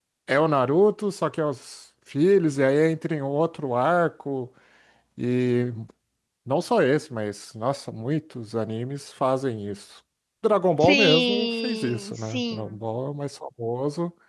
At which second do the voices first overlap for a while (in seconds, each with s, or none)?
10.8 s